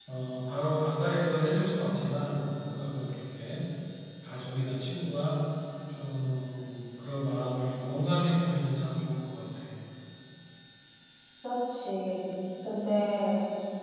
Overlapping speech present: No

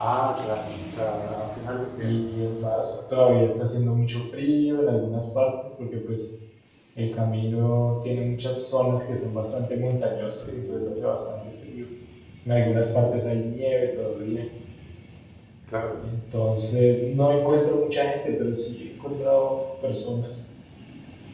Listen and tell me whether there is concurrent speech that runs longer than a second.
No

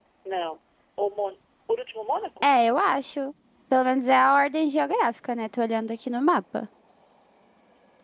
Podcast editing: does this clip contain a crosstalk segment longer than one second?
No

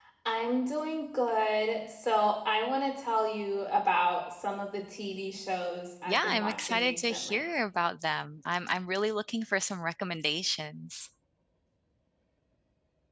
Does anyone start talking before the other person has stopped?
Yes, from 6.1 s

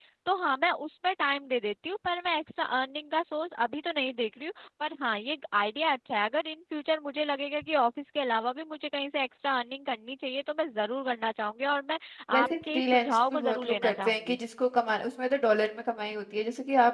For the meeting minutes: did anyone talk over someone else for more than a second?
Yes, from 12.4 s

